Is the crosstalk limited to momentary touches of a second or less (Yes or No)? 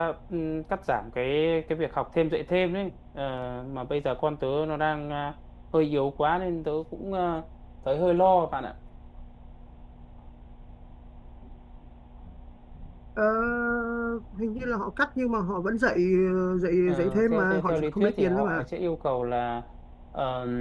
No